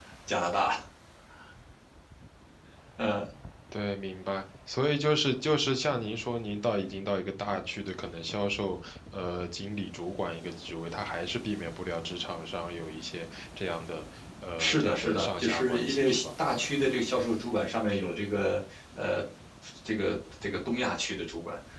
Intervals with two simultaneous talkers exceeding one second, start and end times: 14.6-16.2

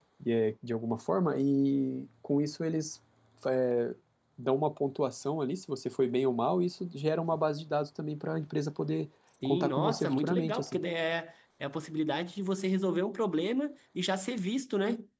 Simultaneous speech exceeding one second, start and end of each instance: 9.4-10.8

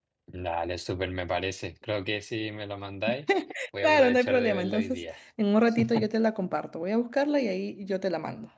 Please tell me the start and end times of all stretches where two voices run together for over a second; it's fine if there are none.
3.8-5.0

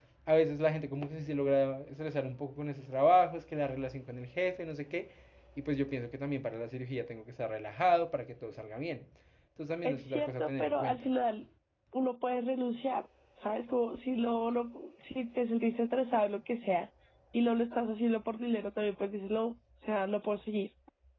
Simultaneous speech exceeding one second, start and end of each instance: 9.8-11.1

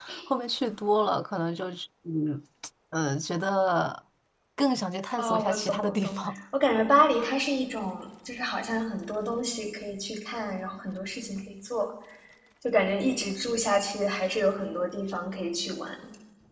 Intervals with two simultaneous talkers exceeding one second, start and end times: 5.2-6.4

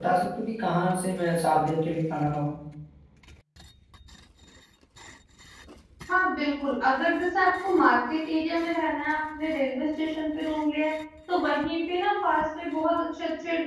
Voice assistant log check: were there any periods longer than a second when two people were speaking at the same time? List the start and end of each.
none

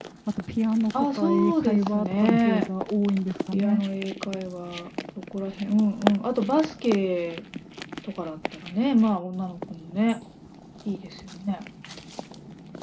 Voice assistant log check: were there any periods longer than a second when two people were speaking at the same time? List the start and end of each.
1.1-2.7

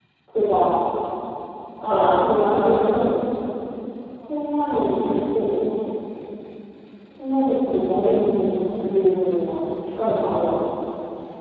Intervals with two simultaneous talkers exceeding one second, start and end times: 1.9-3.1

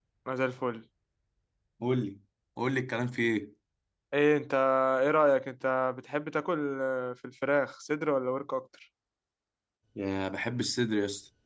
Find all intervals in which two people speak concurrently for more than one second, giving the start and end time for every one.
none

